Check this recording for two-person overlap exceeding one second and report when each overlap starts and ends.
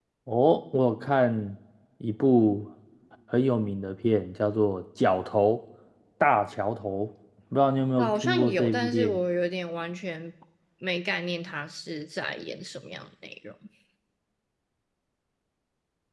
8.0-9.2

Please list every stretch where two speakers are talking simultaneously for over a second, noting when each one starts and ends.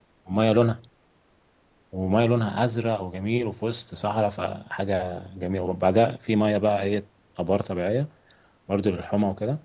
none

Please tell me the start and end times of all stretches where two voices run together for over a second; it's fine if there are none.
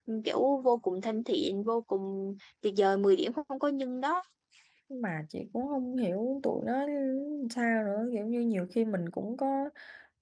none

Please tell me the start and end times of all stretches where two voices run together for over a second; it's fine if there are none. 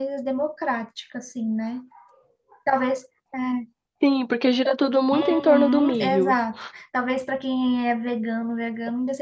5.1-6.4

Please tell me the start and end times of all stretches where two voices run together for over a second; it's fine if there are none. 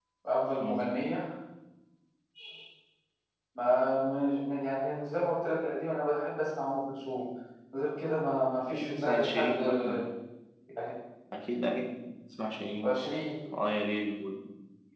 8.7-10.1

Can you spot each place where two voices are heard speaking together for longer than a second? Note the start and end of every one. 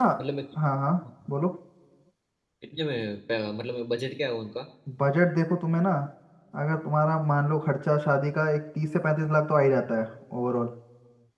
none

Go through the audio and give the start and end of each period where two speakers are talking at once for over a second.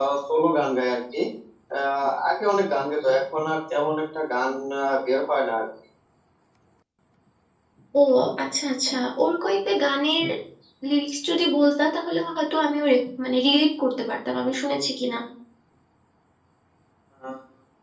none

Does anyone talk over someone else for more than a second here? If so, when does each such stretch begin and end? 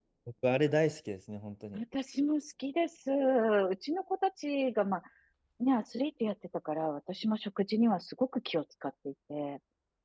none

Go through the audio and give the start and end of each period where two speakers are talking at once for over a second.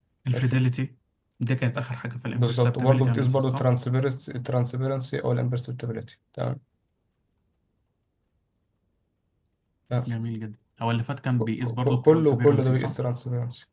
2.4-3.7, 11.4-12.9

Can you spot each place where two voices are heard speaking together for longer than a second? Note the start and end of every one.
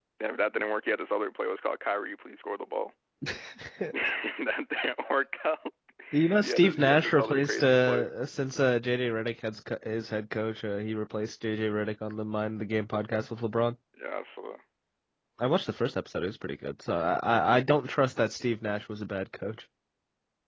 6.4-8.1

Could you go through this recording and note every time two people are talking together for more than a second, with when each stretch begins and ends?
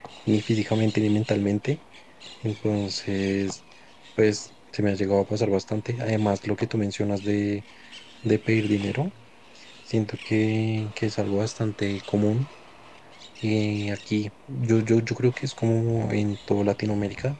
none

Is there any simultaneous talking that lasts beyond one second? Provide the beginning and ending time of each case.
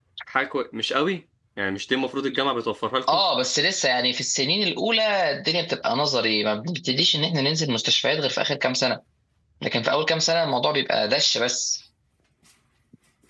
none

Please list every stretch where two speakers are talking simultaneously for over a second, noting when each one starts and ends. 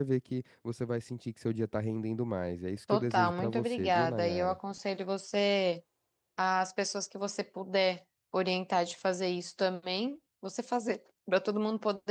2.9-4.6

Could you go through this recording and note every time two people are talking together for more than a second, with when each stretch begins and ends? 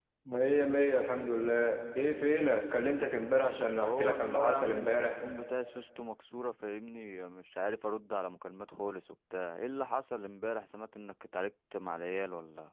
3.8-5.2

